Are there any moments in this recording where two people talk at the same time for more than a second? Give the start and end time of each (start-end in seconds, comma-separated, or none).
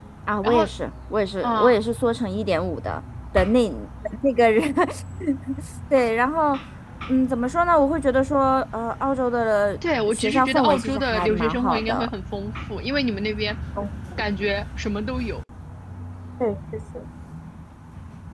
10.1-12.1